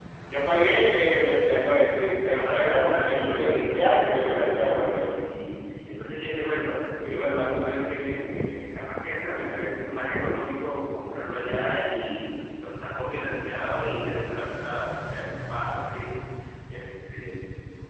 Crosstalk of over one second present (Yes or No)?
Yes